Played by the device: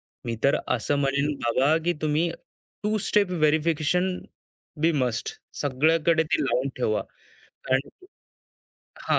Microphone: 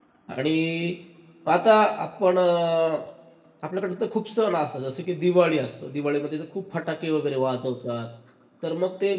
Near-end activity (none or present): present